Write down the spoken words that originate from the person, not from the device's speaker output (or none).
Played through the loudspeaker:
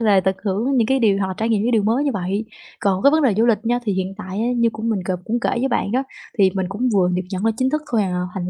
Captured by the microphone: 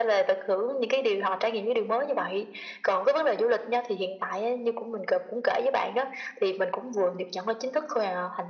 none